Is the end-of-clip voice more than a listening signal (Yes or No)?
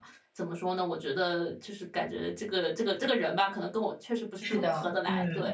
Yes